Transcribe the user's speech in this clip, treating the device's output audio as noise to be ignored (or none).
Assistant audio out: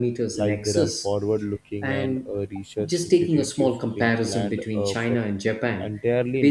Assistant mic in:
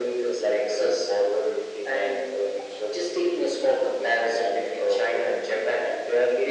none